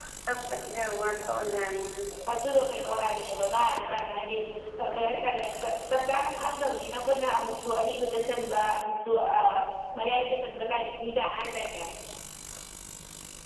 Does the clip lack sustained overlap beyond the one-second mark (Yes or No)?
Yes